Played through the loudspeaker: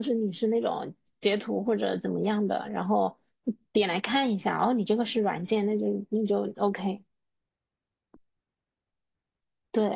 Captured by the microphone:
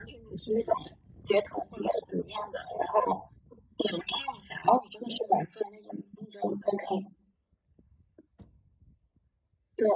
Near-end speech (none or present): none